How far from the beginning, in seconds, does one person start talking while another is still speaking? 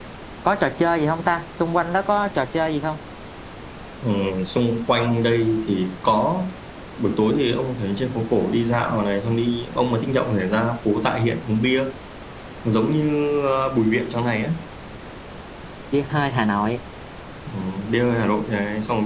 none

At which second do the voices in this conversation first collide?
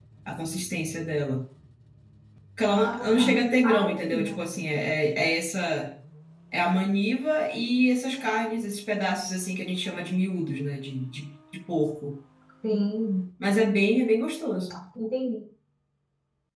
2.7 s

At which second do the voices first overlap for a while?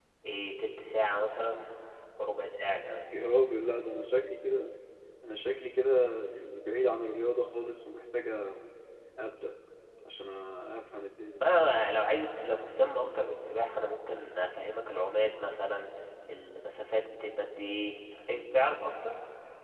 none

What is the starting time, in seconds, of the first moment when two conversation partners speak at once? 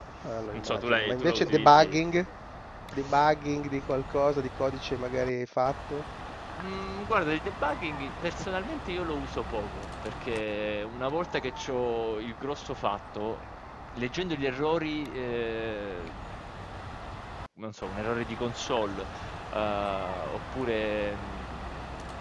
0.5 s

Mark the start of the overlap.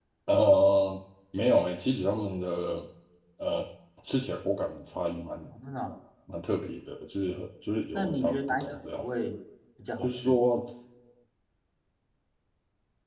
7.9 s

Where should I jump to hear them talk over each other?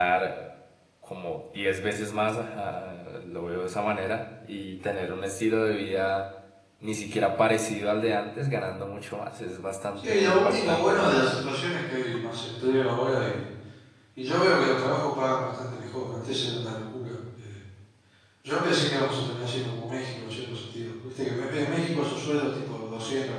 10.0 s

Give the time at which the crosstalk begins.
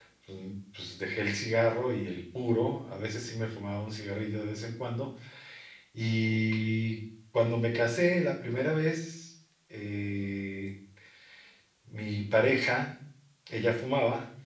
none

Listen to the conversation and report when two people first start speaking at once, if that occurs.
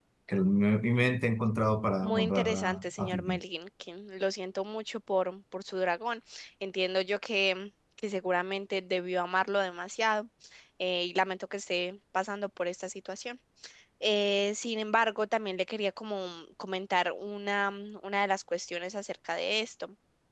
2.0 s

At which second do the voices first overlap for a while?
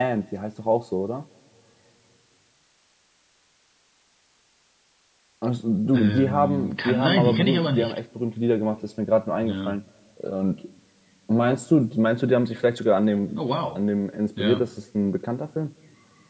5.9 s

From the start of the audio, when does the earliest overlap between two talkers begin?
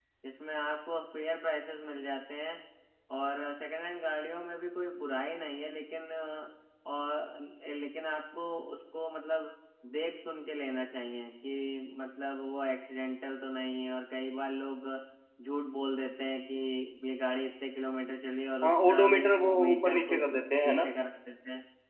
18.6 s

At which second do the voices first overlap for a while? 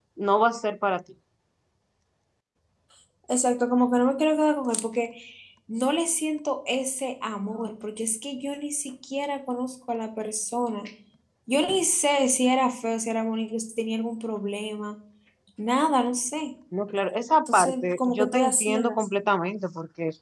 17.5 s

